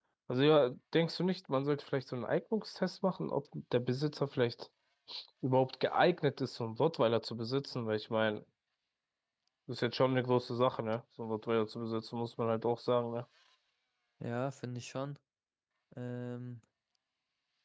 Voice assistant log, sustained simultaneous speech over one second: none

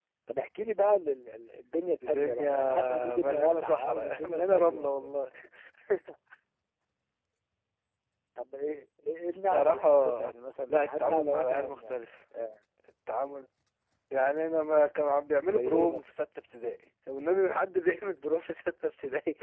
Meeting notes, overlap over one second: present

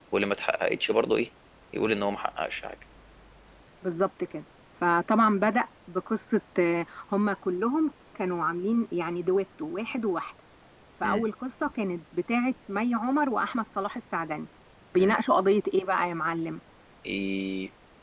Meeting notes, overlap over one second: none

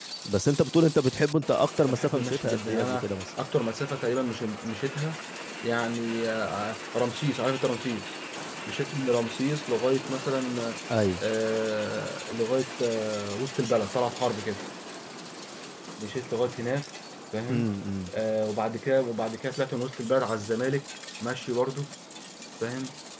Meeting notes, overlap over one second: present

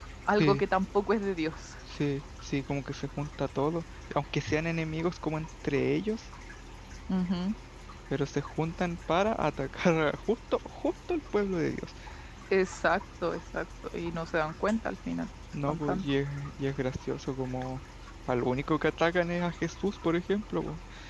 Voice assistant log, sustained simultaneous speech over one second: none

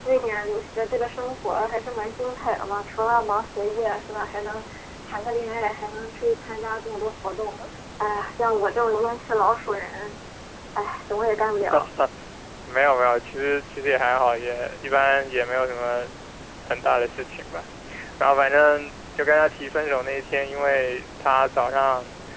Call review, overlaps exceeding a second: none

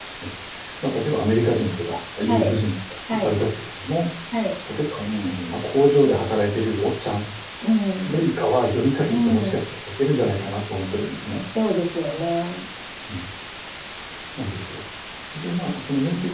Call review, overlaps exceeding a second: none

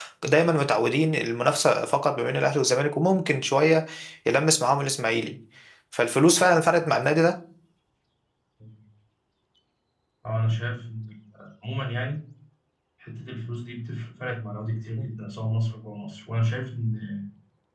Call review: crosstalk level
none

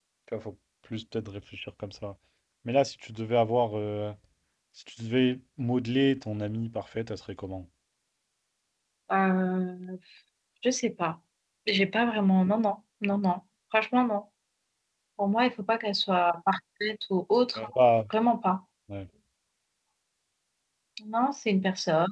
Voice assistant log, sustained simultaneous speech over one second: none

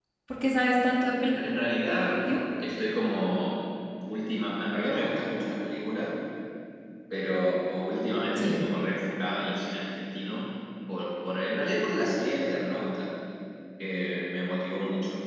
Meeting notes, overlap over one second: none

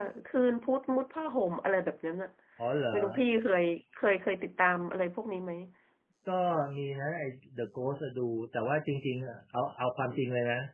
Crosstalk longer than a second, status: none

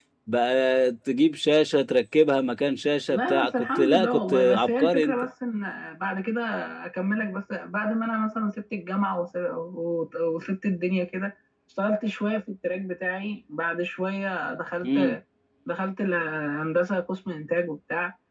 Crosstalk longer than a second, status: present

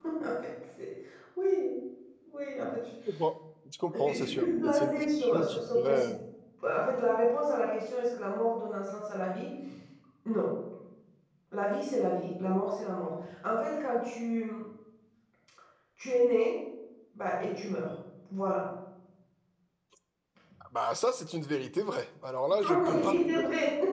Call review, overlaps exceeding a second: present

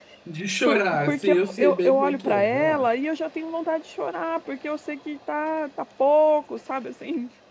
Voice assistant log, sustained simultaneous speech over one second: present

